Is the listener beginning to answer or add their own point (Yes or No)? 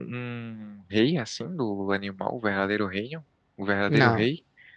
Yes